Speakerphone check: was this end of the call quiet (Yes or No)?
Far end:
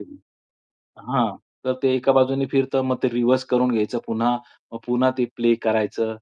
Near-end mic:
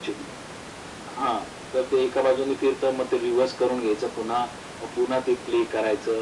Yes